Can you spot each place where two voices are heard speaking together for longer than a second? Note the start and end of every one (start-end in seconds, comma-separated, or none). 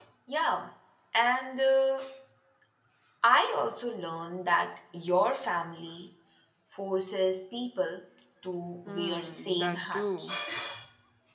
8.8-10.3